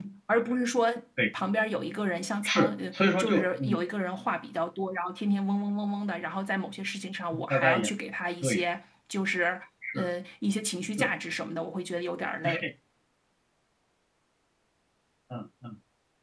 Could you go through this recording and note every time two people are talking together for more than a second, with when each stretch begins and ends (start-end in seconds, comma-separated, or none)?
2.4-3.8